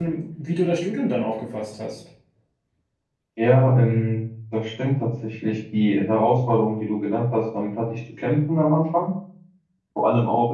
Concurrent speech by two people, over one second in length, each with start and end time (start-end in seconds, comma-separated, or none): none